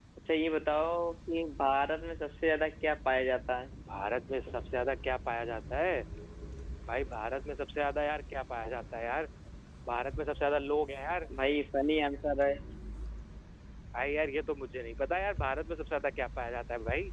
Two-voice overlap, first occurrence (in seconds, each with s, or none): none